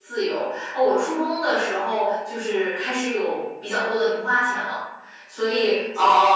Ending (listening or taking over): taking over